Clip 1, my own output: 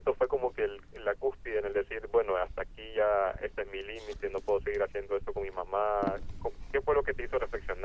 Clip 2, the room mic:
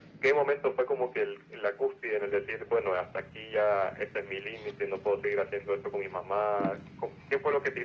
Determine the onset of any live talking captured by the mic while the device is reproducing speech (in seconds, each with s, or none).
none